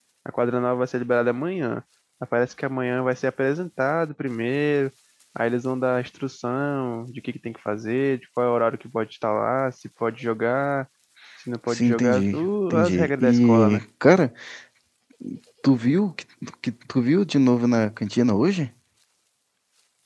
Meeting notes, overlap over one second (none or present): present